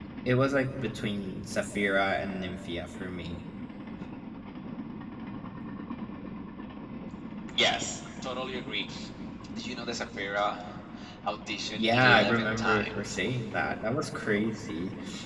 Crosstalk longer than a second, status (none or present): present